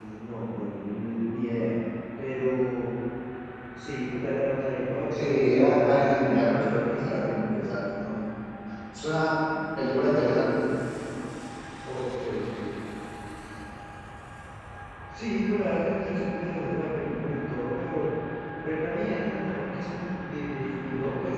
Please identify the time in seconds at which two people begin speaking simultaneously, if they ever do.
5.1 s

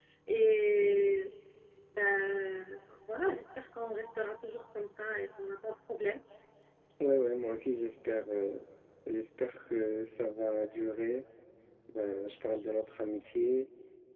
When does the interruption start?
none

